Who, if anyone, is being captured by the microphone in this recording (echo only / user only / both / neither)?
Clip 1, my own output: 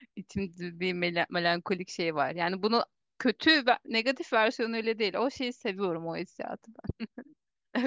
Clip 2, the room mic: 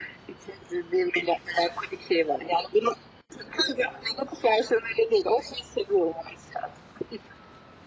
echo only